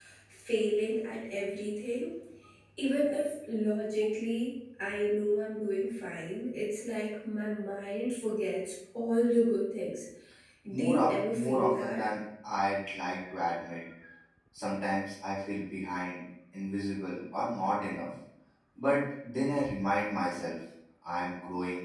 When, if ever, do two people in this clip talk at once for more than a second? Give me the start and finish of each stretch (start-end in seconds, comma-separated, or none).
10.7-12.1